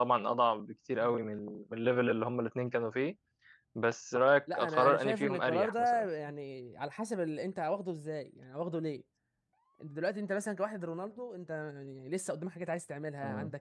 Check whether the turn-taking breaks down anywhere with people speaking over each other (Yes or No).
Yes